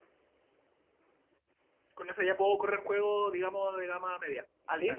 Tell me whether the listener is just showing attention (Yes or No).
No